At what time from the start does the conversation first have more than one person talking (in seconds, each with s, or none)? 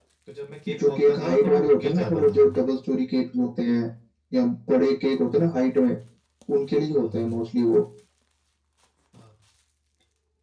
0.8 s